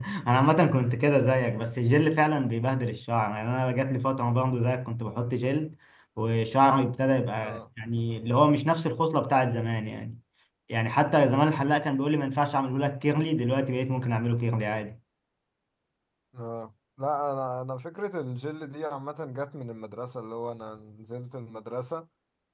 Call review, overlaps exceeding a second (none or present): none